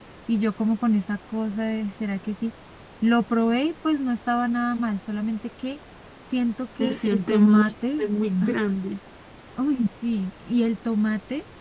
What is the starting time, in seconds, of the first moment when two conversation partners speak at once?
6.8 s

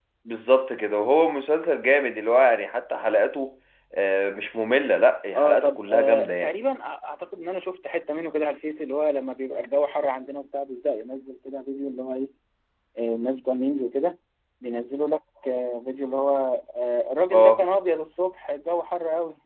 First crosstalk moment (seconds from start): 5.3 s

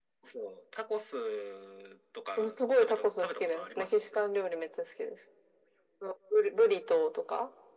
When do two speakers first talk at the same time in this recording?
2.4 s

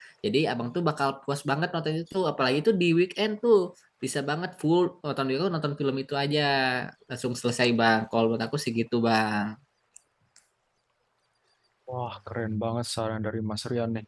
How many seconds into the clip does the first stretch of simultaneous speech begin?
none

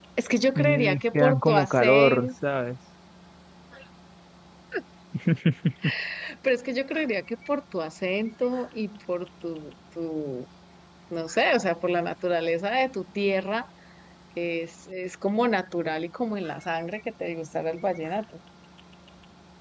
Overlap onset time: 0.6 s

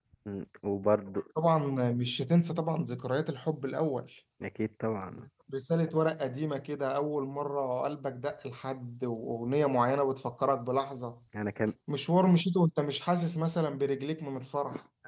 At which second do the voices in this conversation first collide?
none

